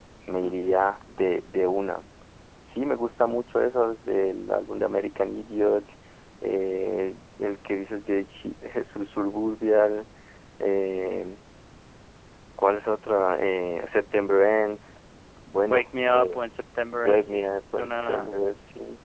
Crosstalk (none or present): present